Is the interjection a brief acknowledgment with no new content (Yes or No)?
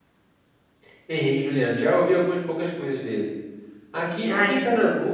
Yes